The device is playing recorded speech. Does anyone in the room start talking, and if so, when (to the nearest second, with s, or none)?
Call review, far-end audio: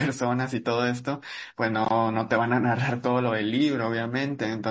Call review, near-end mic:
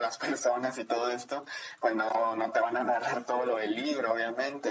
none